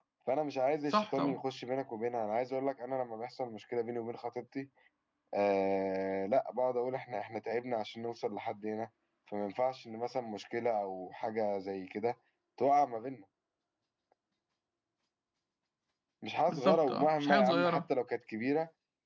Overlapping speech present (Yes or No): Yes